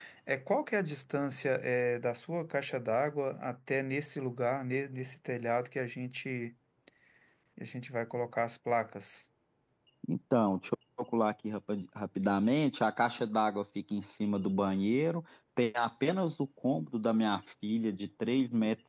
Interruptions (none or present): none